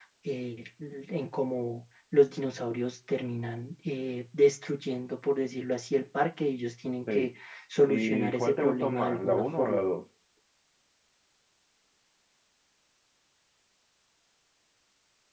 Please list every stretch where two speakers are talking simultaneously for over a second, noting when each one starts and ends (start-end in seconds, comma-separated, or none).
7.8-9.8